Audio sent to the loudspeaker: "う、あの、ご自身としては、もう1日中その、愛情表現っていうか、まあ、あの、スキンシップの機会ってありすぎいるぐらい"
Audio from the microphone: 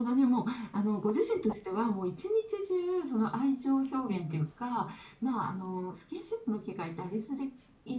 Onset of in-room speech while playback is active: none

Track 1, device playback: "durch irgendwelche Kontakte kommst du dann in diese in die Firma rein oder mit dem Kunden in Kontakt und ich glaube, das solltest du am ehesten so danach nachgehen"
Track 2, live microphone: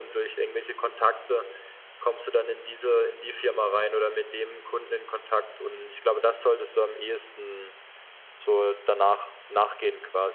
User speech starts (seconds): none

